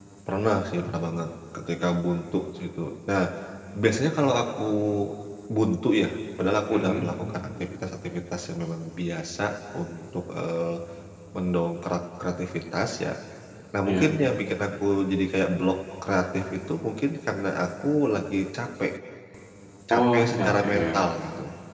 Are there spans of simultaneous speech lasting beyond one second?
Yes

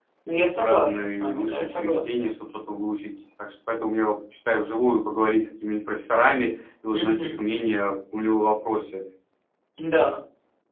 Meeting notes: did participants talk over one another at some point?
Yes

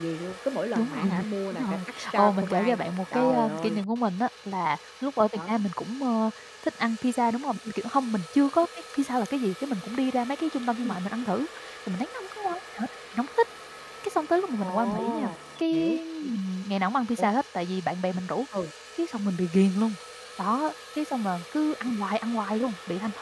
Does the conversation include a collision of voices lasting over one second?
Yes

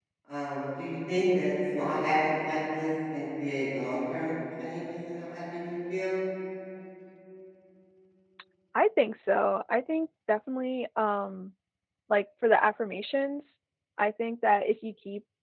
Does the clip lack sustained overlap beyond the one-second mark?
Yes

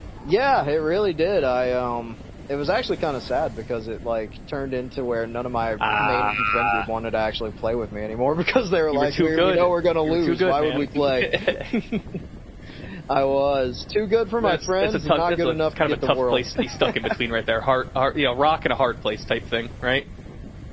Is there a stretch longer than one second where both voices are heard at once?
Yes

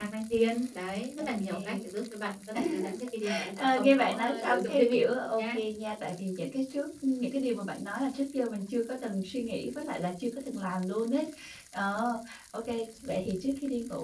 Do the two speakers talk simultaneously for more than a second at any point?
Yes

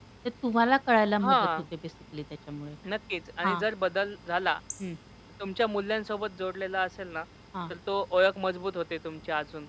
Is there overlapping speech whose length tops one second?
No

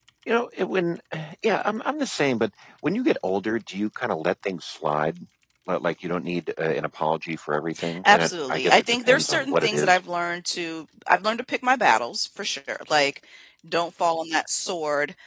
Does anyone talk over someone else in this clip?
Yes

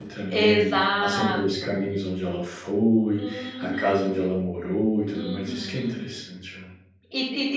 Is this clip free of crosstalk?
No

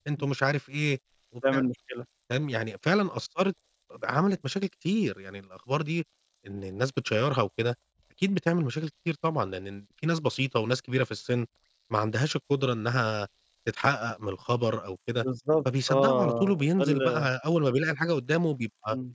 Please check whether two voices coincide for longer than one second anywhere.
Yes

